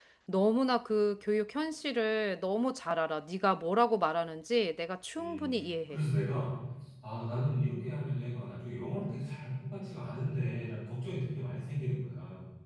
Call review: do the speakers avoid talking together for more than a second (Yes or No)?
Yes